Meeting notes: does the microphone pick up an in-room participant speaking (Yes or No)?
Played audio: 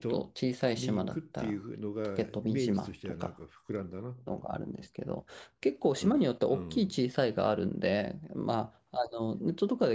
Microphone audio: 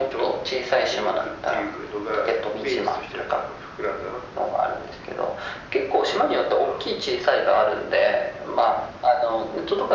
No